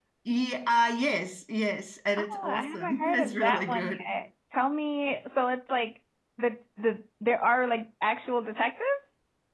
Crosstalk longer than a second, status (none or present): present